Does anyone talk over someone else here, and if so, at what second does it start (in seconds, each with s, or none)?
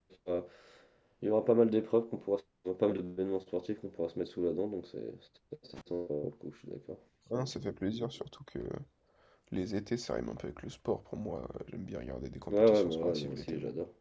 12.5 s